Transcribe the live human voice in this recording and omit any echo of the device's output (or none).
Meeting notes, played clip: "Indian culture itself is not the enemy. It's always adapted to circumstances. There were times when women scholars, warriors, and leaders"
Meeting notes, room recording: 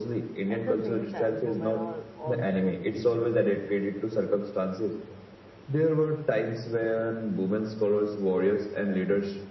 At the same time, women are also